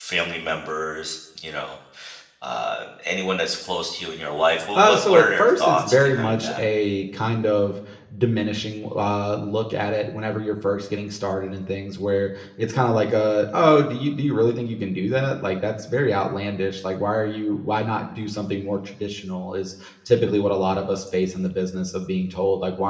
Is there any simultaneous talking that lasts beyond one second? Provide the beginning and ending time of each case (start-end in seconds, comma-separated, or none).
4.8-6.6